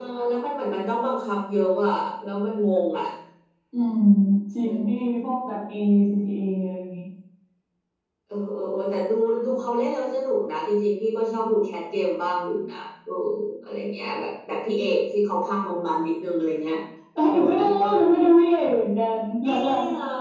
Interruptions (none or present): present